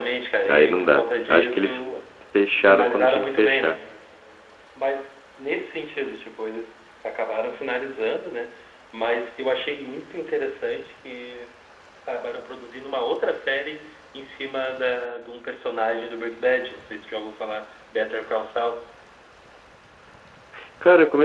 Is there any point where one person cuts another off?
Yes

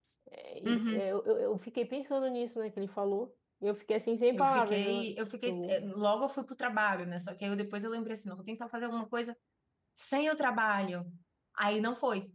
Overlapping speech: Yes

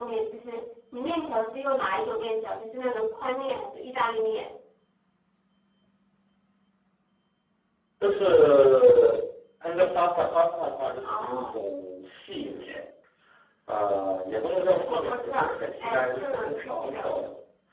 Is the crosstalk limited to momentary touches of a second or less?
No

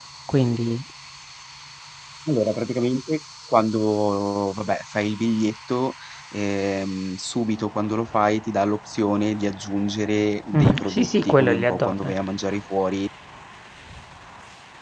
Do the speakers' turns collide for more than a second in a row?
Yes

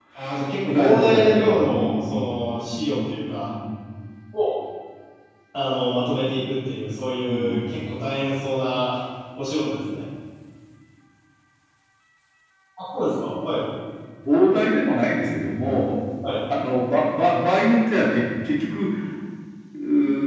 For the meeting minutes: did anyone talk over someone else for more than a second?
Yes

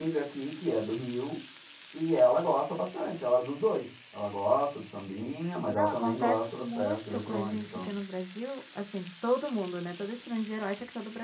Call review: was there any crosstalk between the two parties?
Yes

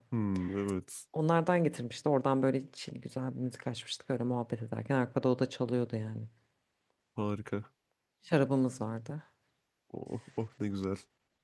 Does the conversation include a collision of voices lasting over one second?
No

